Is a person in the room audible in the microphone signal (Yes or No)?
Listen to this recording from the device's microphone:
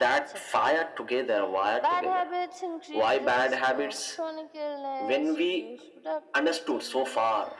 No